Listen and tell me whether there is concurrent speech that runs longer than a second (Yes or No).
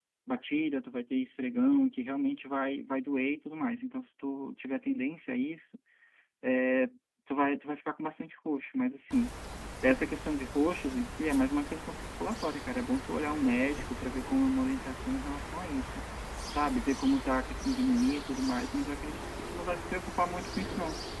No